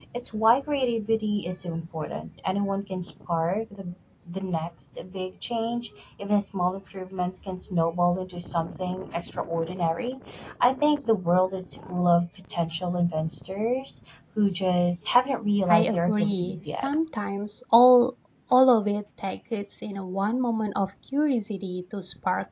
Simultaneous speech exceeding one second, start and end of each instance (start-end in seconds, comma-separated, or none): 15.7-16.9